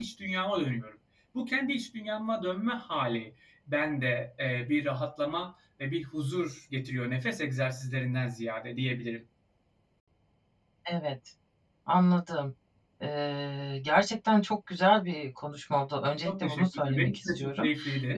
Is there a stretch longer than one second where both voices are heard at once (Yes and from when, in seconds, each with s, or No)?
Yes, from 16.2 s